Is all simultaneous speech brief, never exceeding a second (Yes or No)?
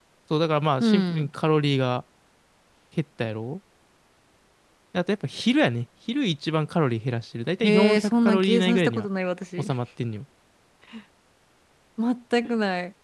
No